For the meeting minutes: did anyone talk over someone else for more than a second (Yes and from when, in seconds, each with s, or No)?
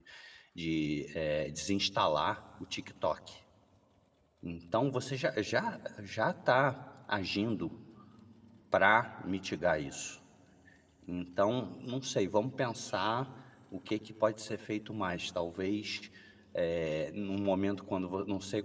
No